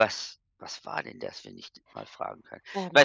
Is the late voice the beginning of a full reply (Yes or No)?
No